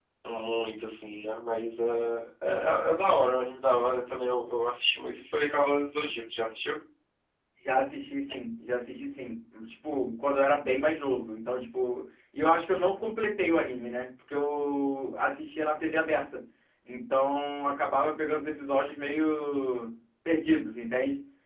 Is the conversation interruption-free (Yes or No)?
Yes